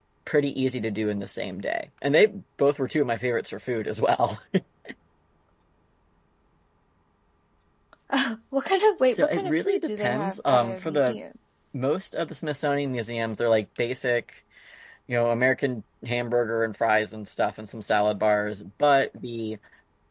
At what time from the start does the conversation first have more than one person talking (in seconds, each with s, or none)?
9.1 s